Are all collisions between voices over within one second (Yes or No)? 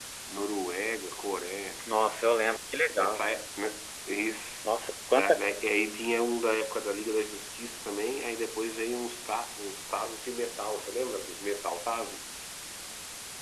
Yes